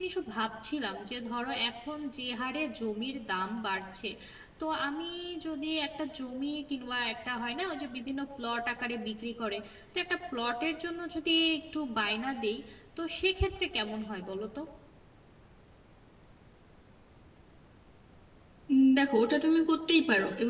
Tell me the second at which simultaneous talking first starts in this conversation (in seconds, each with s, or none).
none